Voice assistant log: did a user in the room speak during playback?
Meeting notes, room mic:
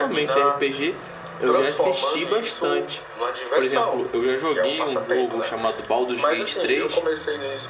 Yes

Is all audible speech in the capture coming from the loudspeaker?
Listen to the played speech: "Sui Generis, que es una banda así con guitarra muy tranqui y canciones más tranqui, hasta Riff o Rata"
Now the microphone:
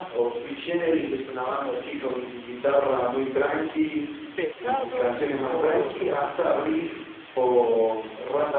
No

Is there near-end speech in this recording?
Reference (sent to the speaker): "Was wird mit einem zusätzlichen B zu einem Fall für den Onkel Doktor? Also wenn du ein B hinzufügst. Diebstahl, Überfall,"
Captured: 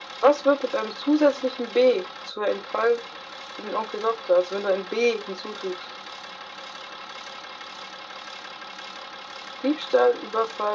No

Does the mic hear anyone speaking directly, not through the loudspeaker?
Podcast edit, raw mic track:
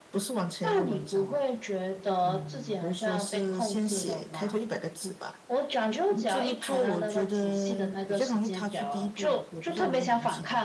No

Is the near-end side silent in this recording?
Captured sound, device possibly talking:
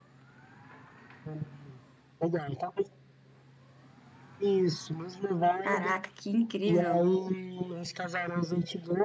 No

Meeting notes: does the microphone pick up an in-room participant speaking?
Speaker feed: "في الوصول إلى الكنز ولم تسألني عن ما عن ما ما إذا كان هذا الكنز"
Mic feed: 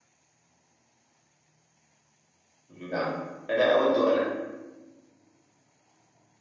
Yes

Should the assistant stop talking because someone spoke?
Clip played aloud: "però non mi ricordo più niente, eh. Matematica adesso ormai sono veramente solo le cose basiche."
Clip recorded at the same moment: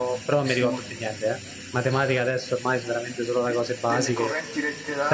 Yes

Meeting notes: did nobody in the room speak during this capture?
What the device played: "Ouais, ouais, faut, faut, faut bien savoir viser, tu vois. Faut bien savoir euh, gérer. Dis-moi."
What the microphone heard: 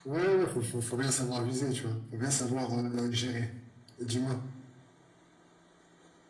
Yes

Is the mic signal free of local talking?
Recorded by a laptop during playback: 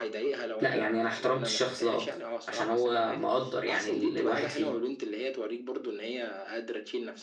No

